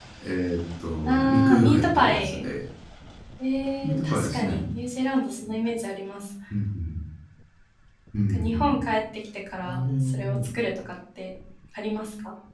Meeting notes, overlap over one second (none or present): present